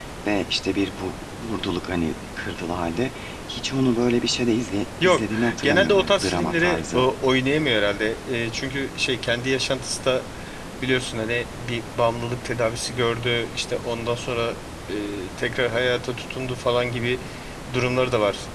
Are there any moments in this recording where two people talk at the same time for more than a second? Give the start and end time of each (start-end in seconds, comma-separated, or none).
5.0-7.1